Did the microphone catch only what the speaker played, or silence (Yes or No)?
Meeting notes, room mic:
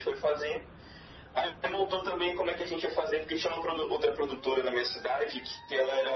Yes